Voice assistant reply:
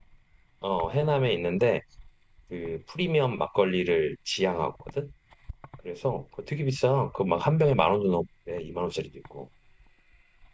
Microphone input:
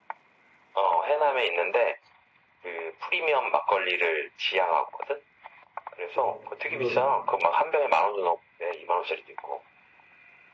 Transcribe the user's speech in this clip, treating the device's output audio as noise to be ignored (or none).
그래서 물론.